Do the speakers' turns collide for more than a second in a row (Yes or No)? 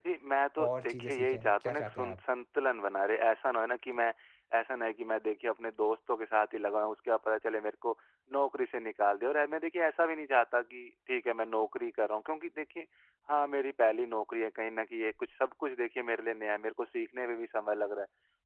Yes